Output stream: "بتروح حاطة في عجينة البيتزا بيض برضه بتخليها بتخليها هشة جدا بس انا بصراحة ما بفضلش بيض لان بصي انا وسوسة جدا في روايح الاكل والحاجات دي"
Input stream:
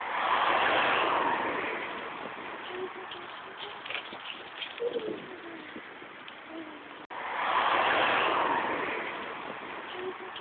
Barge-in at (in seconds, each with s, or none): none